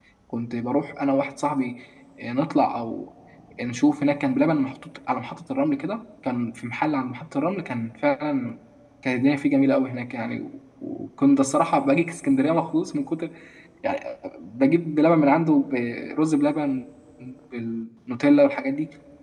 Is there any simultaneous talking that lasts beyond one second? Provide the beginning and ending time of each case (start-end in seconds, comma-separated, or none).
none